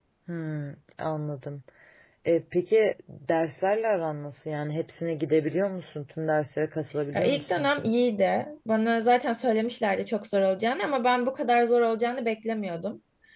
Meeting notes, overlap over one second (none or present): none